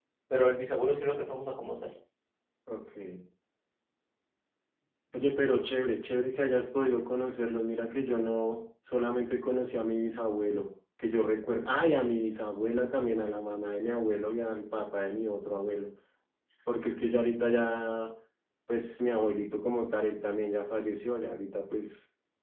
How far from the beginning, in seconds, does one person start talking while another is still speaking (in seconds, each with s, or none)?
none